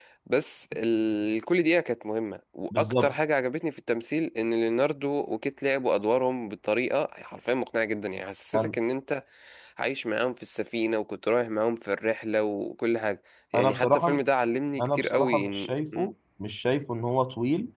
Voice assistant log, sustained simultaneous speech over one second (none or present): present